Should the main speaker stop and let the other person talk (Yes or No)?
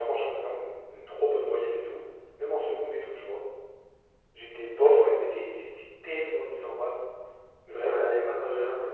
Yes